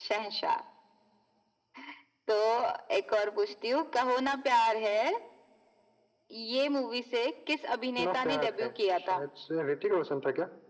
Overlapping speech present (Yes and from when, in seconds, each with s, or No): Yes, from 8.0 s